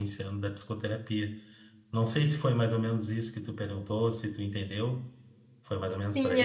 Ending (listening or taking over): taking over